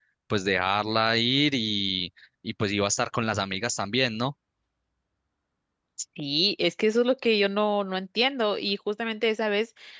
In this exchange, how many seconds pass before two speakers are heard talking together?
none

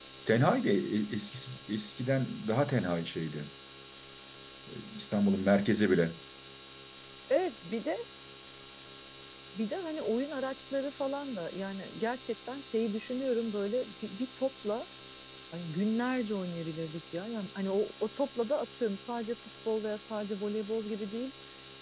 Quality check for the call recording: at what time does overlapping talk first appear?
none

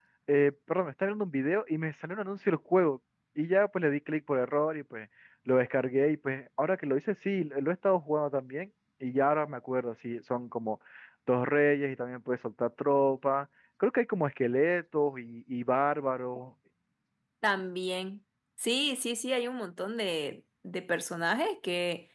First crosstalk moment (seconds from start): none

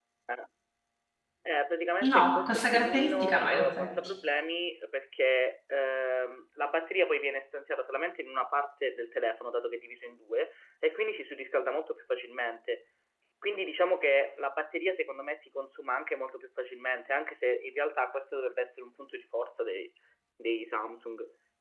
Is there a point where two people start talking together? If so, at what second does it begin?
2 s

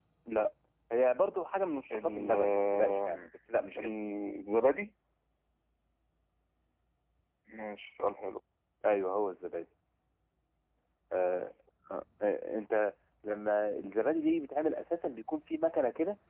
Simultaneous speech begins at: 2 s

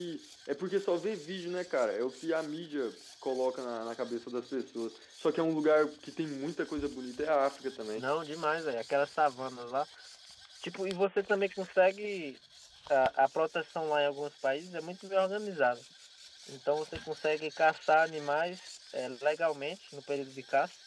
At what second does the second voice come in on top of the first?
none

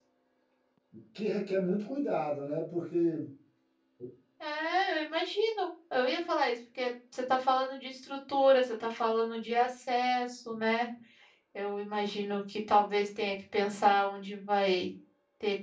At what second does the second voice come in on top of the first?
none

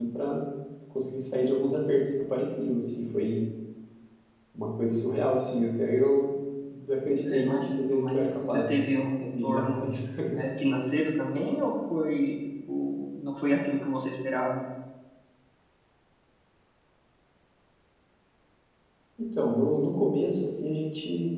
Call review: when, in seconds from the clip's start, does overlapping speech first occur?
7 s

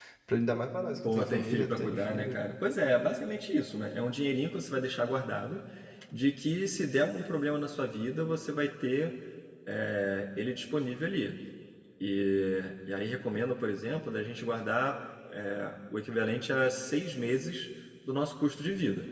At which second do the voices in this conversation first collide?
1 s

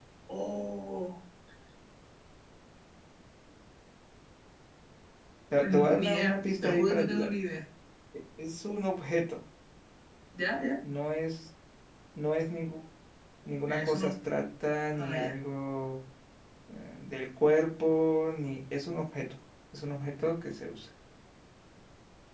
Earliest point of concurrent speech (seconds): 6 s

